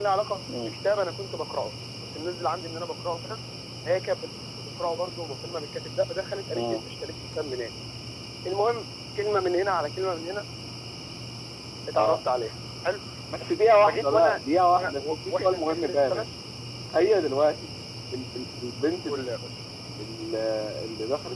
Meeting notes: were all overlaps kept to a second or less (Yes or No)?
No